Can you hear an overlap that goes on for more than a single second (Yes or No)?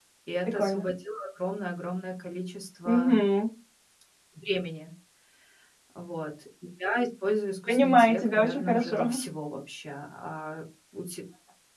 Yes